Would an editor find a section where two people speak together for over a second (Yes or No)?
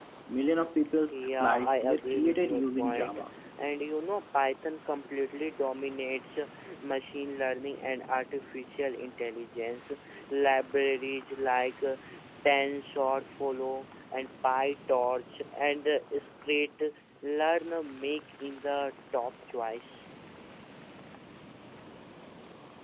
Yes